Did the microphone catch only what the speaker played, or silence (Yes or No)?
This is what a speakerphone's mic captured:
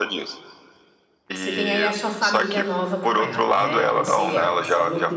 No